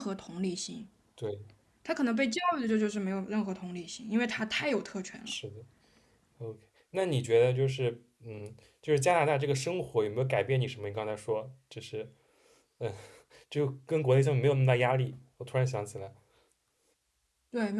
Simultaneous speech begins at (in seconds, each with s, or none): none